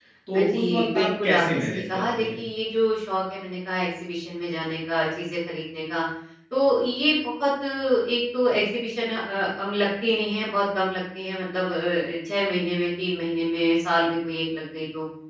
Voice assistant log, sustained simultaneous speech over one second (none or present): present